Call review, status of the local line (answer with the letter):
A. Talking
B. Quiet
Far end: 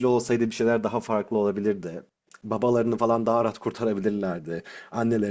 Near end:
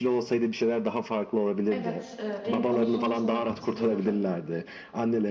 A